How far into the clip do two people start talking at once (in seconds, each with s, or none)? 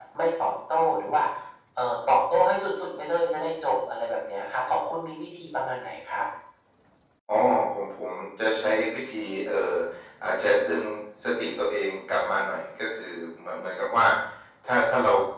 none